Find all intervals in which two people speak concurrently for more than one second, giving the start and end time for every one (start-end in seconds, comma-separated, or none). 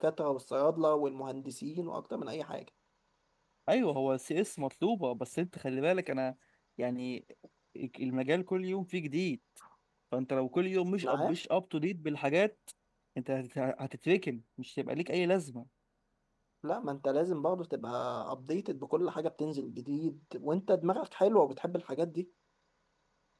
none